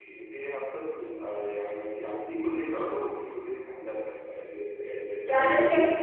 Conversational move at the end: taking over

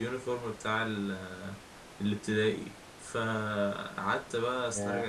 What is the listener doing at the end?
listening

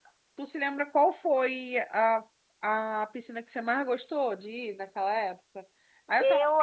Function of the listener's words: listening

